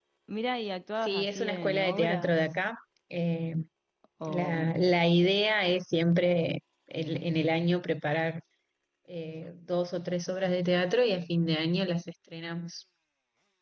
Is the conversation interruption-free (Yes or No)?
No